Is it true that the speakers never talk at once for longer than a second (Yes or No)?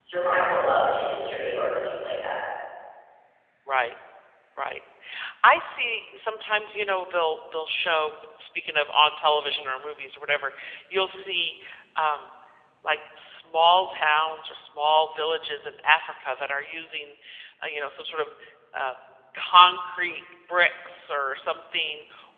Yes